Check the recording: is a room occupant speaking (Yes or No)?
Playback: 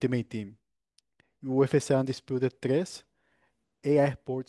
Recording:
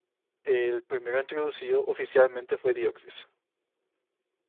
Yes